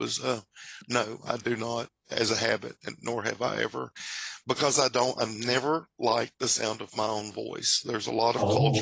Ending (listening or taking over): listening